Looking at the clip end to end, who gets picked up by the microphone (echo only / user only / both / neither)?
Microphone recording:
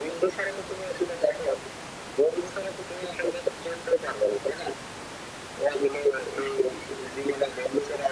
echo only